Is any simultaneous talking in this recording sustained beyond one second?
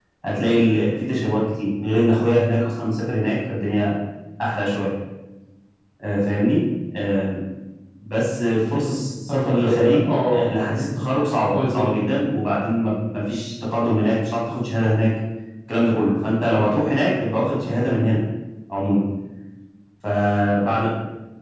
Yes, from 9.3 s

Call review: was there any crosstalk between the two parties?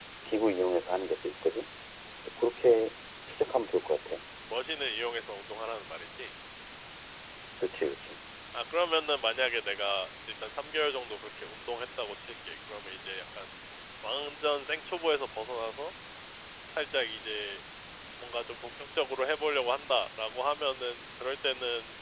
No

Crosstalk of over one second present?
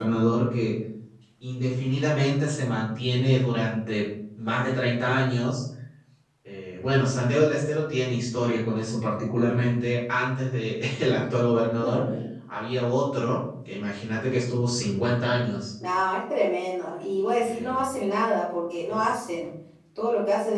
No

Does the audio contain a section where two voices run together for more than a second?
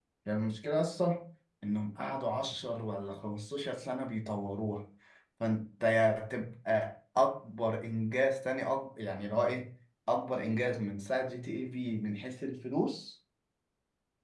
No

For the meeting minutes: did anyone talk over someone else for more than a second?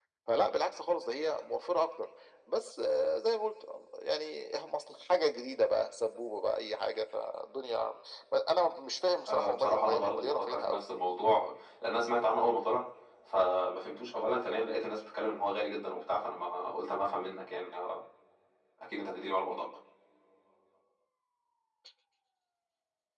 Yes, from 9.3 s

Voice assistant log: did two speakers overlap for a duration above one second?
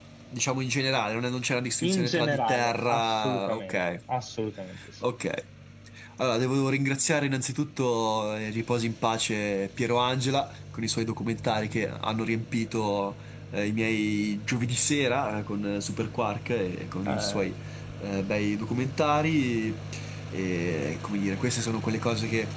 Yes, from 1.8 s

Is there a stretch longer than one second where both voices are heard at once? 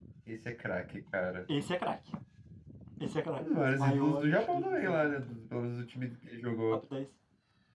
Yes, from 3.4 s

